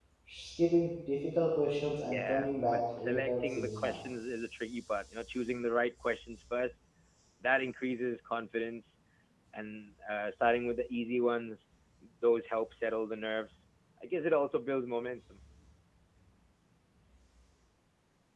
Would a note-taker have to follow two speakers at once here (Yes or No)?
Yes